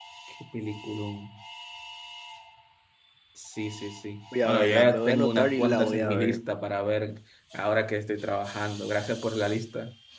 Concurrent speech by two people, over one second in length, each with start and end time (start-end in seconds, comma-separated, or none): 4.4-6.4